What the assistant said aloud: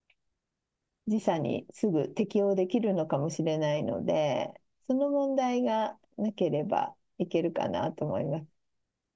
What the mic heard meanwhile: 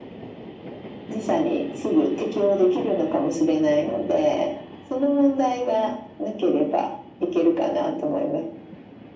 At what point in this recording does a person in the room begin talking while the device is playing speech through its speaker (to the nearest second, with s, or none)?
none